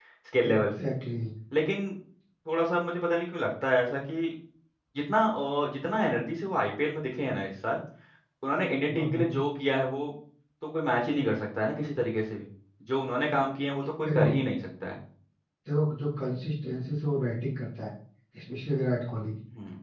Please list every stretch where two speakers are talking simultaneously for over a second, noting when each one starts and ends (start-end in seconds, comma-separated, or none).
none